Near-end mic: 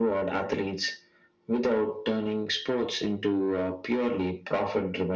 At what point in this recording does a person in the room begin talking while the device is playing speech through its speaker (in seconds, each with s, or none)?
none